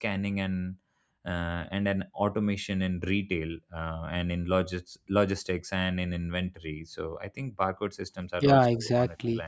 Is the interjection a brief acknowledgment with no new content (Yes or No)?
No